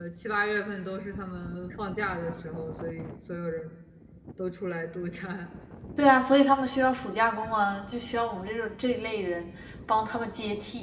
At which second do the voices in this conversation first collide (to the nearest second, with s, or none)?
none